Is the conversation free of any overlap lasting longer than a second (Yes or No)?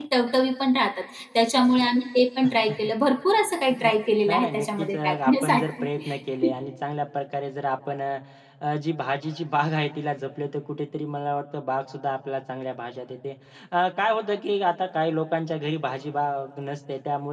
No